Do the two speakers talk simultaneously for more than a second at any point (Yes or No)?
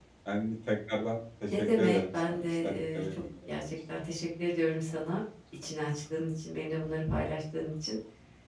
Yes